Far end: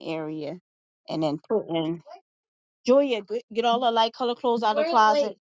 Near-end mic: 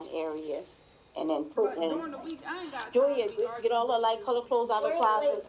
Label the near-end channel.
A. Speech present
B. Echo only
A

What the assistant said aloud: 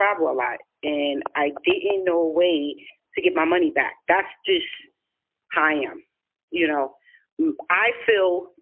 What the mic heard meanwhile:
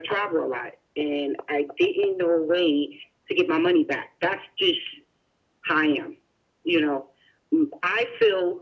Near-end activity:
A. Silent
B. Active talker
A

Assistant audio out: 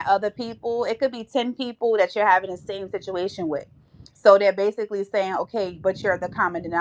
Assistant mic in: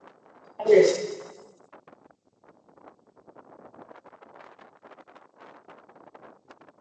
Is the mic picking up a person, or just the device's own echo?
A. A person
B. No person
A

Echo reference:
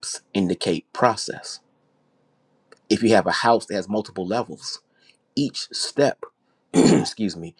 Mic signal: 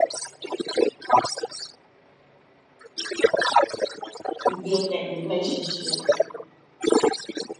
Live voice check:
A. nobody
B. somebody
B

